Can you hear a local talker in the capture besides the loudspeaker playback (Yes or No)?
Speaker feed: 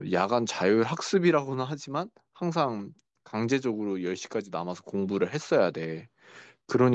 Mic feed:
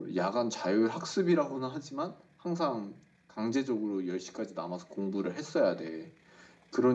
No